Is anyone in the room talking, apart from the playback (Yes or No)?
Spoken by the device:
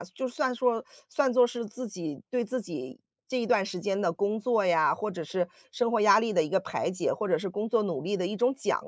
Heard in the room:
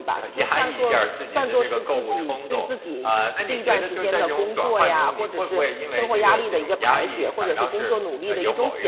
Yes